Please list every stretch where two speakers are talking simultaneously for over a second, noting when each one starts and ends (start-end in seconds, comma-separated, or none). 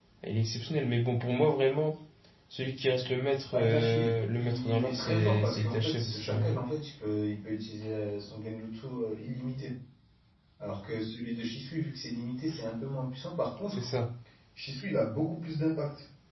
3.5-6.5